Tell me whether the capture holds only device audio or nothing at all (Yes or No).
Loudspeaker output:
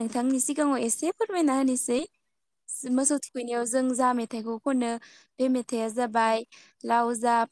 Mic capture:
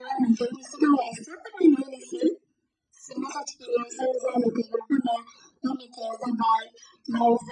Yes